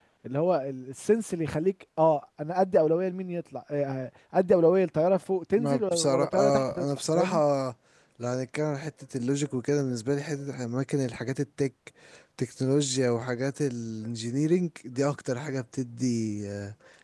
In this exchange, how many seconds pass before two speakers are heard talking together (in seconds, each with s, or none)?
5.6 s